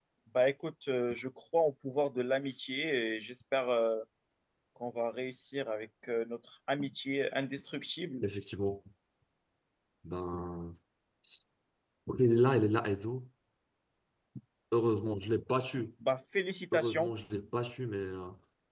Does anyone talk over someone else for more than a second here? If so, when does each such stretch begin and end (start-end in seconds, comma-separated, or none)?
none